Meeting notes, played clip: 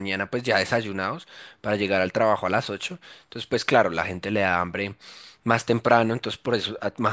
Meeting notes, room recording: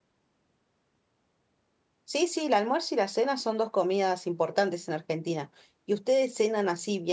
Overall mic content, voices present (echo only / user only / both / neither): user only